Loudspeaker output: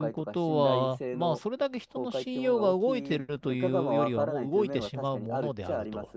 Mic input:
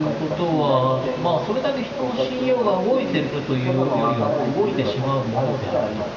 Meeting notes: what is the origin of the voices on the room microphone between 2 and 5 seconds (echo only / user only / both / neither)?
echo only